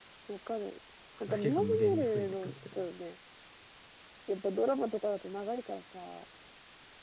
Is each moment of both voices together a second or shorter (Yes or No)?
No